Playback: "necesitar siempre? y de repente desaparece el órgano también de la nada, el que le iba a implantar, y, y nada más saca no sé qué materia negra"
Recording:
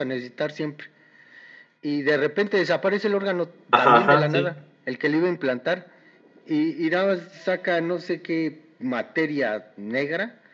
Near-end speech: present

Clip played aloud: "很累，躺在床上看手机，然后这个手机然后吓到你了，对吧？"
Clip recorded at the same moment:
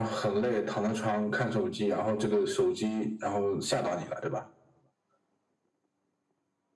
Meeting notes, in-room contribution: none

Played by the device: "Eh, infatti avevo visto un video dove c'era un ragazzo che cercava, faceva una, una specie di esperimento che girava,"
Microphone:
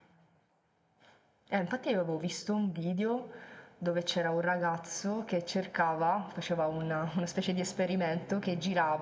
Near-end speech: none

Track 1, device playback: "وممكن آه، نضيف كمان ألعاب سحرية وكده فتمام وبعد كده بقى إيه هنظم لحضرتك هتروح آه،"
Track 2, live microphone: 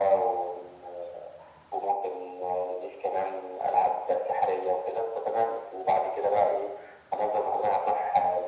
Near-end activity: none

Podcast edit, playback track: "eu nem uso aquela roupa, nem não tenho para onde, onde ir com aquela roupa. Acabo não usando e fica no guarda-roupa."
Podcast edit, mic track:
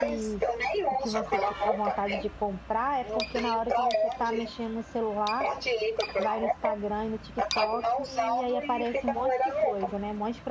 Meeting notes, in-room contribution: present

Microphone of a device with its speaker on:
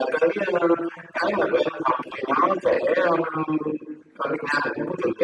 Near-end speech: none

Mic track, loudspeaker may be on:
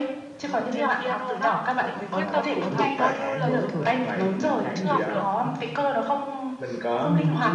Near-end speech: present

